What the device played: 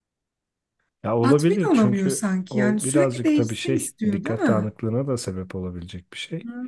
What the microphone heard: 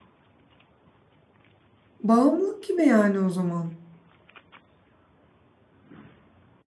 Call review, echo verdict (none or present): none